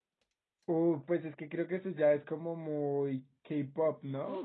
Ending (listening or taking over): taking over